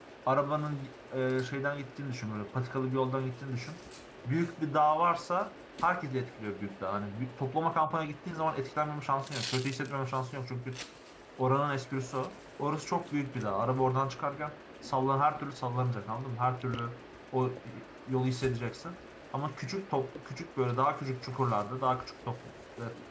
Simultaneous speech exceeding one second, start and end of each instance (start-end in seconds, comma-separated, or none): none